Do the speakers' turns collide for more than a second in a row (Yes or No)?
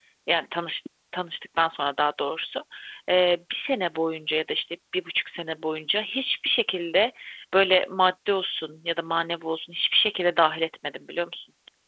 No